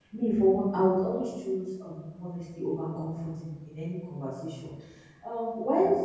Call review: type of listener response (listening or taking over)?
listening